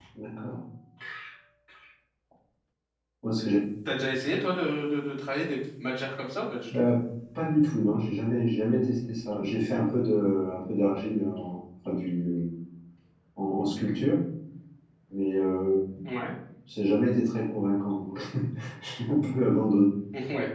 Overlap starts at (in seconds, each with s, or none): none